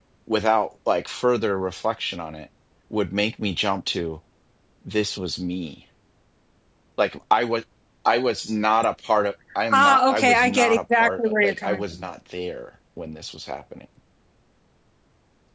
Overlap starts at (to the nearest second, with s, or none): 10 s